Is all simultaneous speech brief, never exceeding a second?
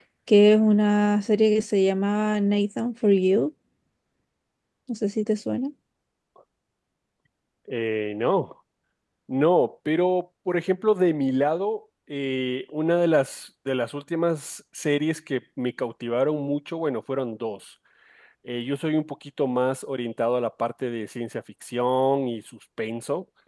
Yes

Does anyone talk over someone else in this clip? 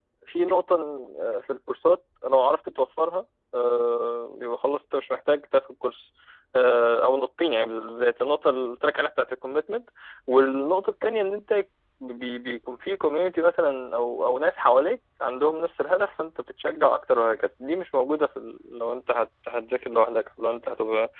No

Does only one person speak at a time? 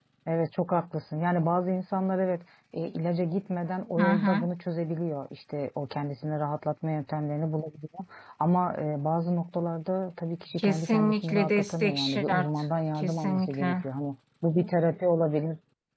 No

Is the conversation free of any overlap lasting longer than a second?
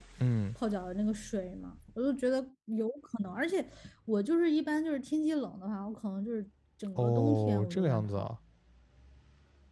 No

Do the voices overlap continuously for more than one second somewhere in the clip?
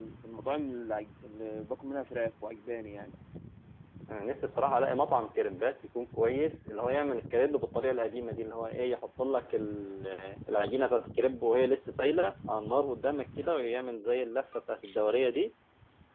No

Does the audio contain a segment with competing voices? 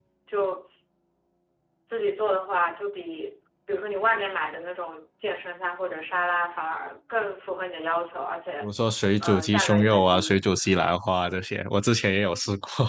Yes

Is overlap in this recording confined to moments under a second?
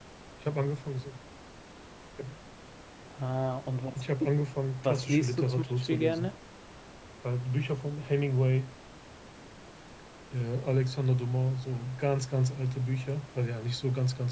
No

